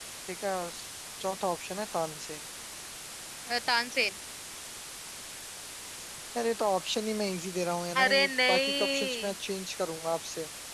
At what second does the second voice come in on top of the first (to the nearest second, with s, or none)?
8 s